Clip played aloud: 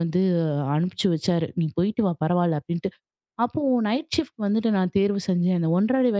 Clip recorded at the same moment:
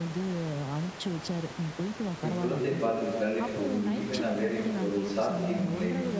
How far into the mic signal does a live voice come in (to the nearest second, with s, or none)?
2 s